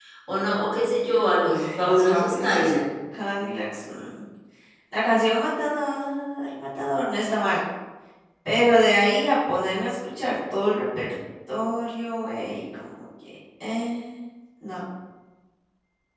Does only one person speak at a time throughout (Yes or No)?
No